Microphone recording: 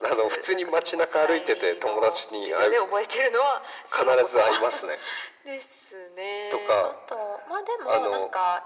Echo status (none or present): present